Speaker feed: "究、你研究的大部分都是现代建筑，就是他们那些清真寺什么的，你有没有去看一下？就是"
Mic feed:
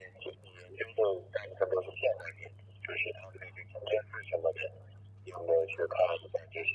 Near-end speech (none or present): none